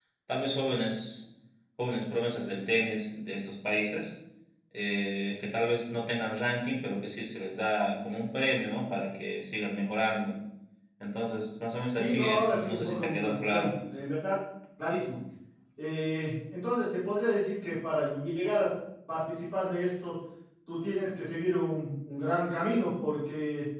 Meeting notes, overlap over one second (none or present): present